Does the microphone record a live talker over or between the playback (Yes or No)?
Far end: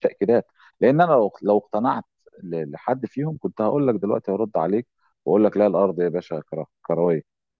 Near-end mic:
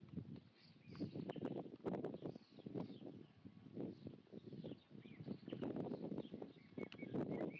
No